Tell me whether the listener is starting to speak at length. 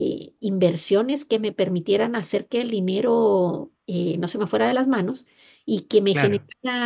No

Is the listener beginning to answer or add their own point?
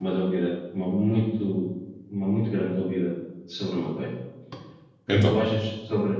No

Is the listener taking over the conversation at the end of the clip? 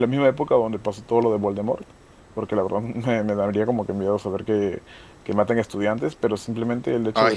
No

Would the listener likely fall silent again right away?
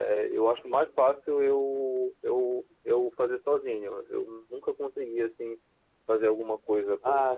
No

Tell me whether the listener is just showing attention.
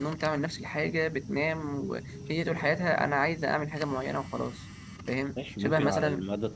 No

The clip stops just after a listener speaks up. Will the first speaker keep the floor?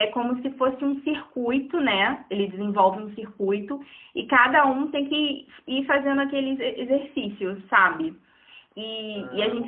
No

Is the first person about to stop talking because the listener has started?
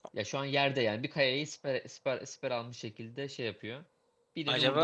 Yes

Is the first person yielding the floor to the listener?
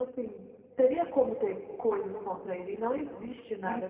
Yes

